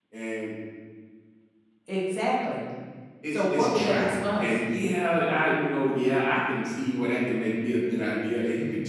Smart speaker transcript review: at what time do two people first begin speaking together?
3.3 s

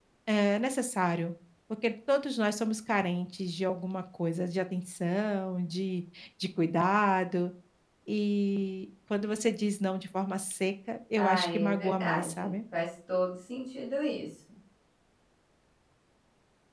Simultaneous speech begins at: 11.2 s

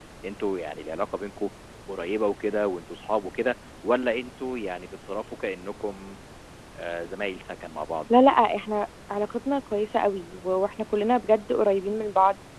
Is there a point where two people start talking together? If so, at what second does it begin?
none

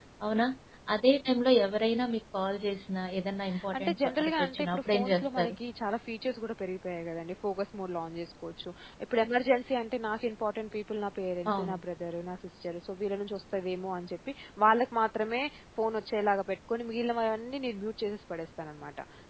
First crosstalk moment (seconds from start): 3.8 s

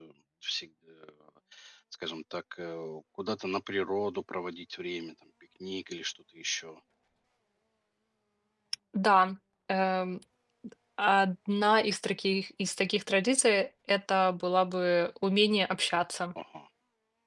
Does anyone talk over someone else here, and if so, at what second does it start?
none

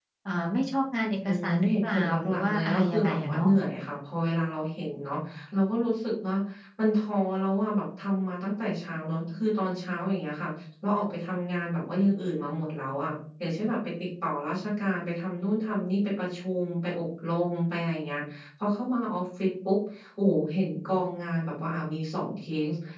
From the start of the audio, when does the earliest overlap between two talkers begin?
1.2 s

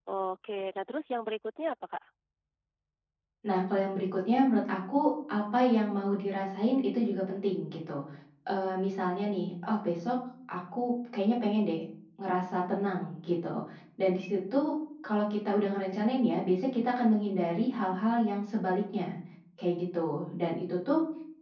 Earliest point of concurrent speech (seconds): none

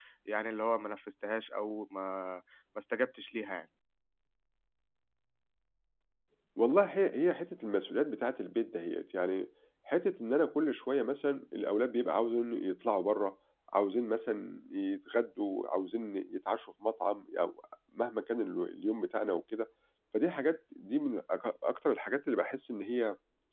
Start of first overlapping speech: none

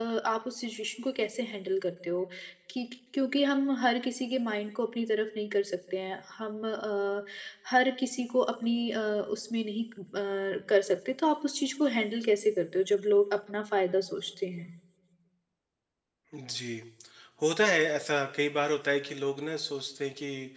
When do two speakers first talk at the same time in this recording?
none

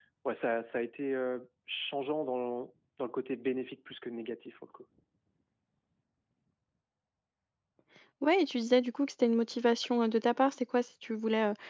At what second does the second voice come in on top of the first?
none

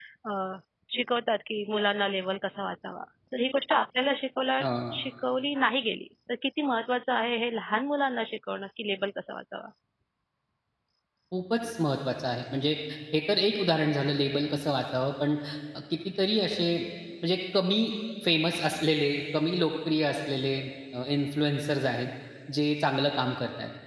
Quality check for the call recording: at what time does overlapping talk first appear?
none

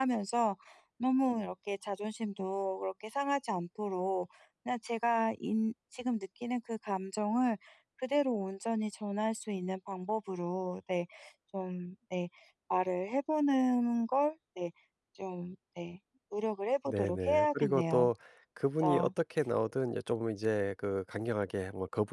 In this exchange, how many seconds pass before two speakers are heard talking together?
16.9 s

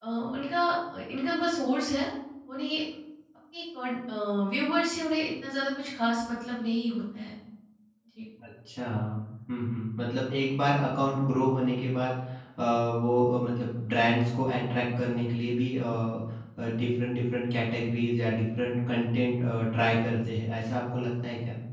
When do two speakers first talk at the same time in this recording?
none

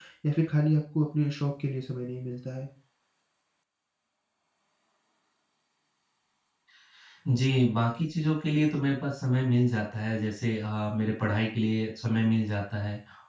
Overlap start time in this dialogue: none

